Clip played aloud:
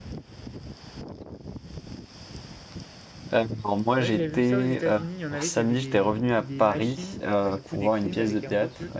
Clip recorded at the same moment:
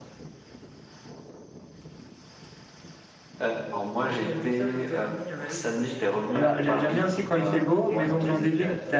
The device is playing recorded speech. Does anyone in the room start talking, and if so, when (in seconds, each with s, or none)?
6.3 s